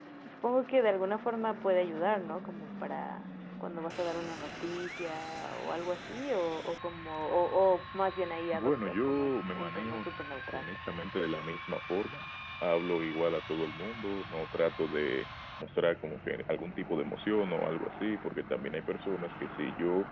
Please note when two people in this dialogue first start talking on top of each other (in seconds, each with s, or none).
8.5 s